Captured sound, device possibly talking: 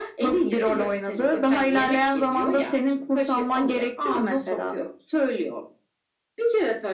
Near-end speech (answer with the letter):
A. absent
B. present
A